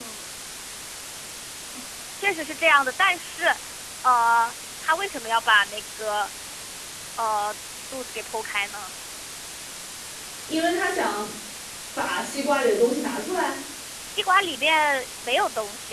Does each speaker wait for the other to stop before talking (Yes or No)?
Yes